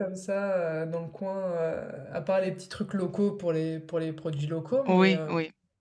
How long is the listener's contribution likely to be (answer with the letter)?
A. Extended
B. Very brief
A